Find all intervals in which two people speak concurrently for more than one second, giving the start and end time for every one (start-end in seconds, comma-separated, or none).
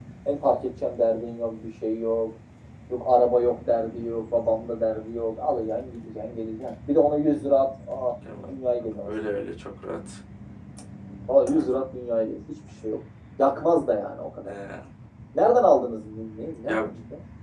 none